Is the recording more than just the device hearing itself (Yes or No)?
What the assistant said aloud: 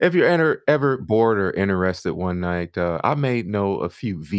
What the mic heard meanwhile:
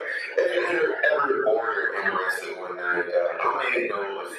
No